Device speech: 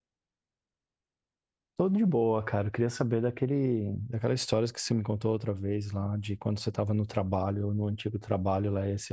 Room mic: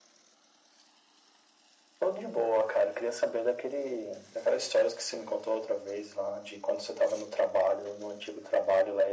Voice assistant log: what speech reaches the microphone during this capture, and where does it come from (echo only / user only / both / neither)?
echo only